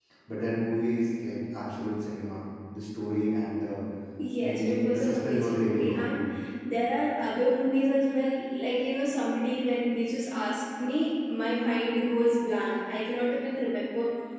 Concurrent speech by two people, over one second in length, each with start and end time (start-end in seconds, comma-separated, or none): 4.4-6.1